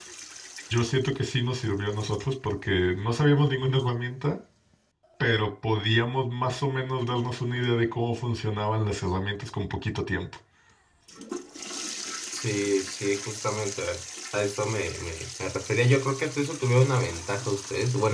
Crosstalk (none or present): none